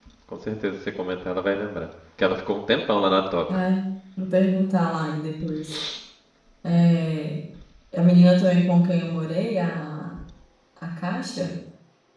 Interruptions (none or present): none